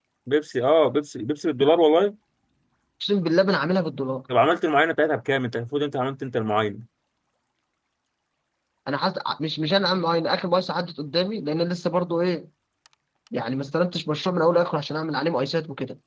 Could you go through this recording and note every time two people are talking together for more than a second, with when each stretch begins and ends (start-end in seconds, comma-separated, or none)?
none